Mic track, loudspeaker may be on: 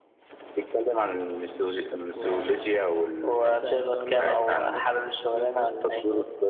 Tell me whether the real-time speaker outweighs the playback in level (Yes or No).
No